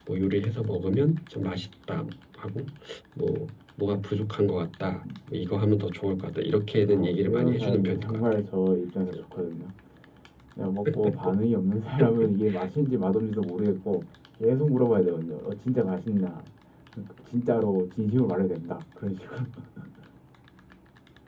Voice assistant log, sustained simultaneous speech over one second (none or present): present